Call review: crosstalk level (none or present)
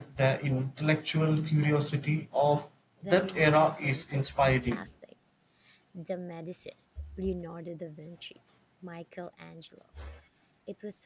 present